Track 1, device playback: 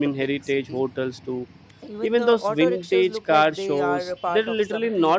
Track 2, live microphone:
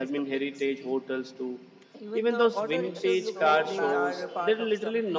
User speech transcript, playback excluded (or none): It's so massive